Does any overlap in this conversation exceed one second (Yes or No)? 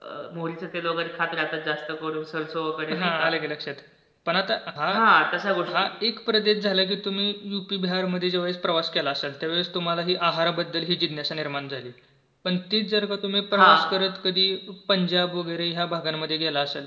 No